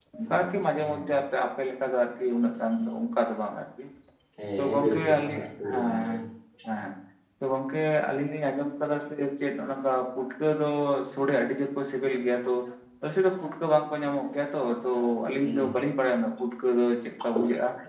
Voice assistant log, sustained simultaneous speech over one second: present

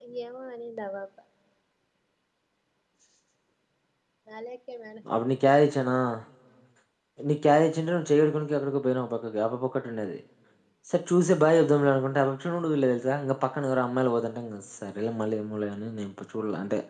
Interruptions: none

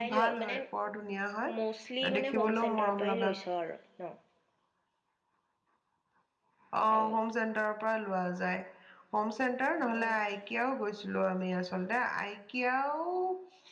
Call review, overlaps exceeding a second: present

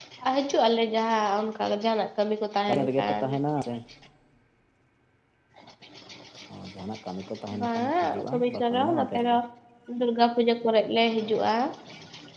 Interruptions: present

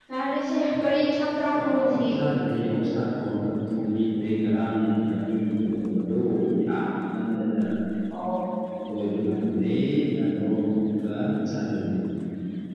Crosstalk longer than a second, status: none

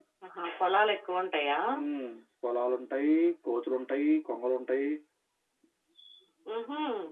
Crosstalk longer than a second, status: none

